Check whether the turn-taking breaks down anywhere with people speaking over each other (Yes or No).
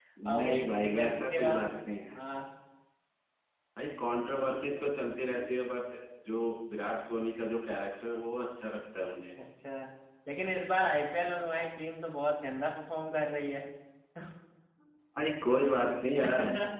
Yes